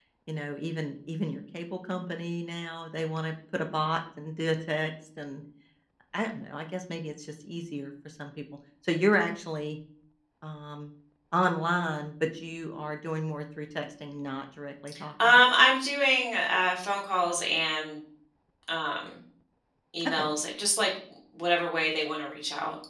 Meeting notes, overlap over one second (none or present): none